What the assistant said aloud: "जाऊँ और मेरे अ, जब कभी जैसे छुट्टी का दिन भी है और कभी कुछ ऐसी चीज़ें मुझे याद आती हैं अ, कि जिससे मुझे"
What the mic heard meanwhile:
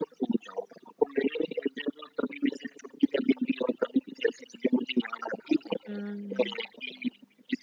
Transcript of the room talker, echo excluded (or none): हुँ।